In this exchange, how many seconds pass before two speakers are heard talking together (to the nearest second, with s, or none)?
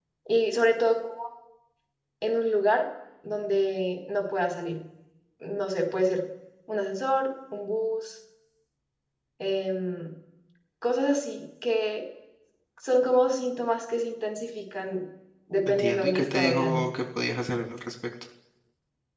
16 s